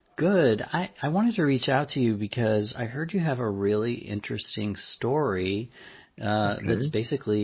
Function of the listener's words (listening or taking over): listening